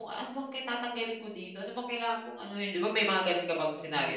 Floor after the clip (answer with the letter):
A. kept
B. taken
B